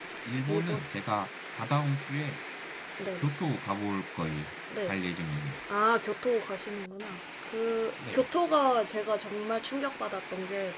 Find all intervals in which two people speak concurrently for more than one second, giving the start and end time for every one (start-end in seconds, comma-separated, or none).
none